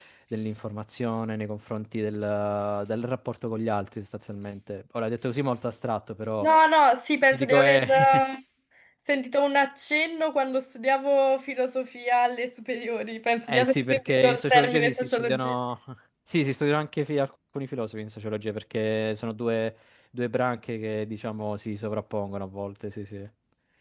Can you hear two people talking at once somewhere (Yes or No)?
Yes